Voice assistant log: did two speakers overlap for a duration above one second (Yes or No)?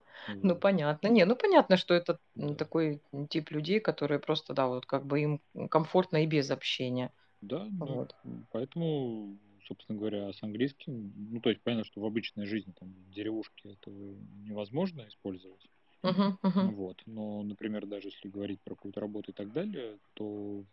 No